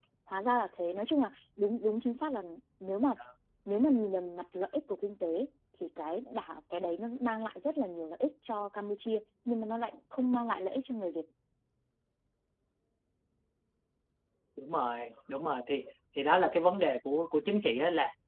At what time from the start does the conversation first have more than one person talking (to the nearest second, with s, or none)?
none